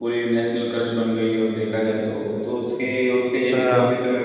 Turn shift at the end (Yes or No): No